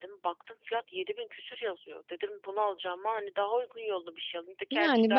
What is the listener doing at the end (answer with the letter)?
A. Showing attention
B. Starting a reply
B